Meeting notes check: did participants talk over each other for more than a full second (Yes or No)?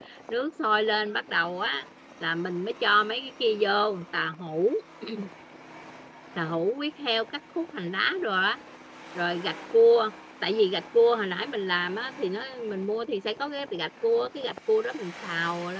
No